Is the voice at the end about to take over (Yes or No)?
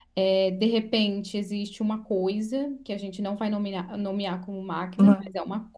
No